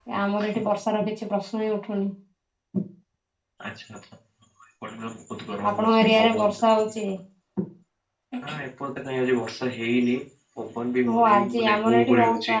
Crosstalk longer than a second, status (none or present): present